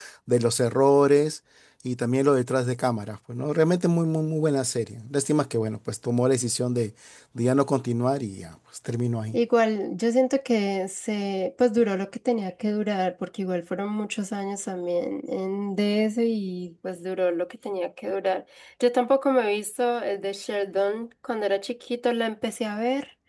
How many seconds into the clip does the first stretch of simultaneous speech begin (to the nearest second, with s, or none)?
none